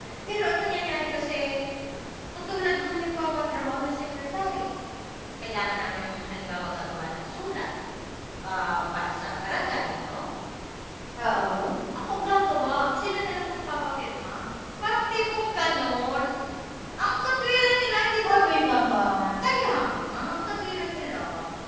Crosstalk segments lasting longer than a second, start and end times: none

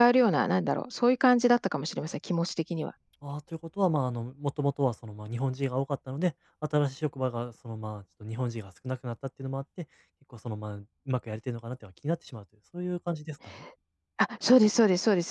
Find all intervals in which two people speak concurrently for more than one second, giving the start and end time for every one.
none

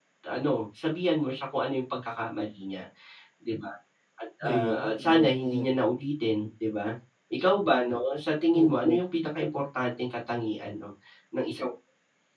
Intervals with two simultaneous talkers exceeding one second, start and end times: 4.4-5.7

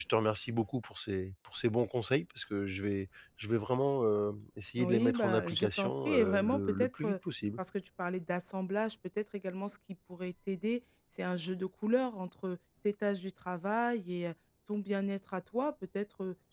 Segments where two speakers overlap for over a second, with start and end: 4.8-7.2

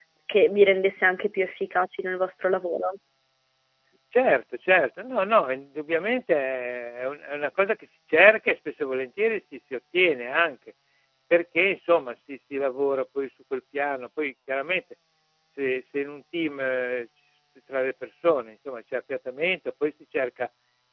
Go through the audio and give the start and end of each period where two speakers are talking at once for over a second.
none

